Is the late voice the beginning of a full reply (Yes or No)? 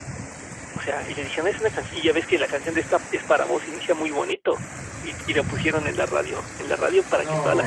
No